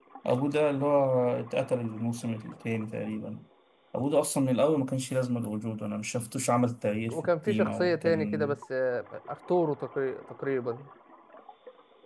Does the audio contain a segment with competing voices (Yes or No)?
Yes